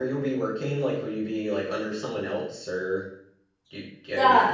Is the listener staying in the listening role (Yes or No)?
No